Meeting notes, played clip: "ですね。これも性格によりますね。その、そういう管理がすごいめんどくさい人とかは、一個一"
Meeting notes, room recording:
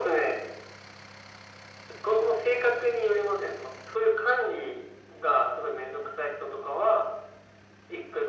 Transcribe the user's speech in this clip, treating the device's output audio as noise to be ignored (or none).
none